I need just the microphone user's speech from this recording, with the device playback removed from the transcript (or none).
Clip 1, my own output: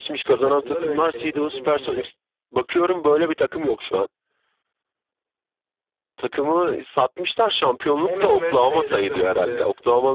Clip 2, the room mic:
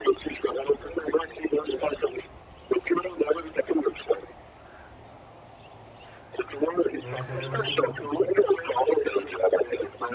Ben Fenerbahçe'nin koçuyum.